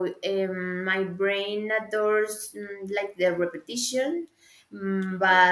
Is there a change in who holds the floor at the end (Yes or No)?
No